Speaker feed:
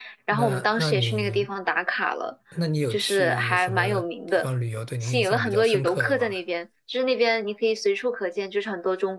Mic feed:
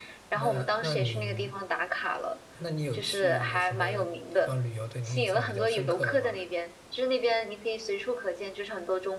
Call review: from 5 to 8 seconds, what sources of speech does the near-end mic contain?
echo only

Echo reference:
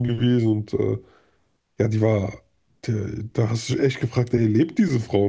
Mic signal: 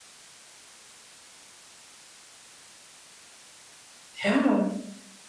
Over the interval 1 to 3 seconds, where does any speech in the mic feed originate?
neither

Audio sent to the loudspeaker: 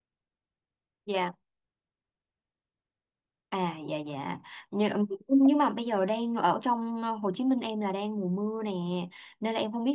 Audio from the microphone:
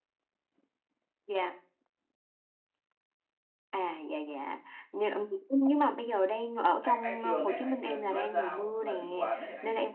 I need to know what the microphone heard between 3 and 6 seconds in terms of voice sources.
echo only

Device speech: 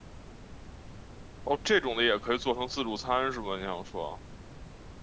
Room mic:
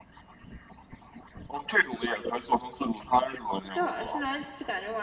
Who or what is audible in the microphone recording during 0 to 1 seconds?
neither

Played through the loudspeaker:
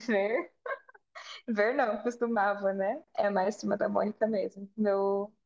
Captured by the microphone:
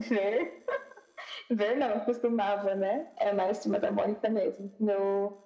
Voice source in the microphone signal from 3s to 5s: echo only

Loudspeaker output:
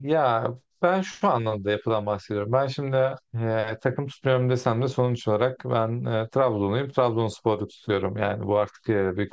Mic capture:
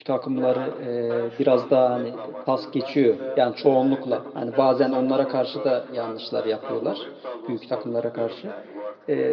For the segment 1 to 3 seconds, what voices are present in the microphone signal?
both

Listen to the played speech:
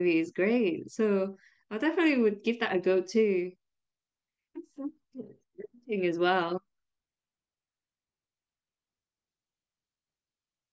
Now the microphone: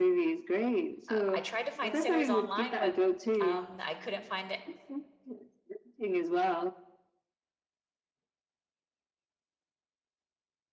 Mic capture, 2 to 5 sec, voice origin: both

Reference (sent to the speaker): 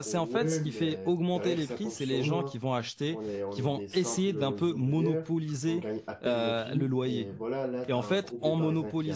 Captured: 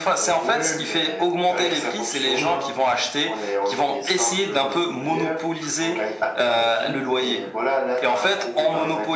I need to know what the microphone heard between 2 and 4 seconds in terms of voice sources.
echo only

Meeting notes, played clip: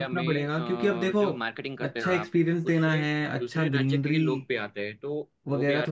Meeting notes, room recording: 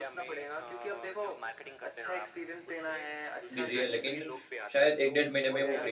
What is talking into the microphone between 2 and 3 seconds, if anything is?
echo only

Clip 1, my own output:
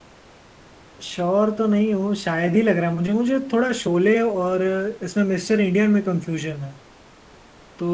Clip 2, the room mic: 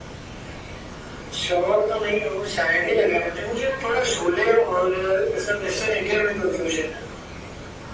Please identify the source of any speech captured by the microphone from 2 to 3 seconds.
echo only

